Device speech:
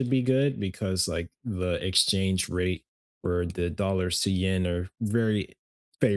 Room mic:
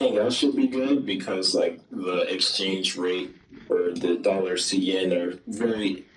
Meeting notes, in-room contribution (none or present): none